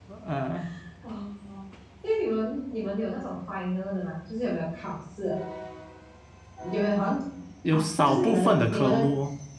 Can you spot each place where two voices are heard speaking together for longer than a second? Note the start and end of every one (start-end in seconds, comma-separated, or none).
7.7-9.1